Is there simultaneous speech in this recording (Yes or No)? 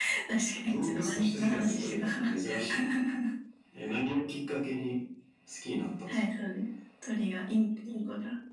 Yes